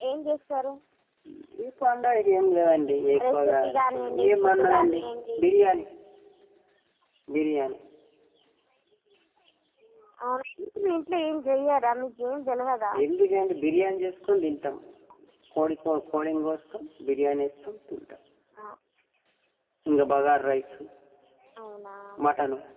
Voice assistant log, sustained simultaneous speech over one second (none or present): present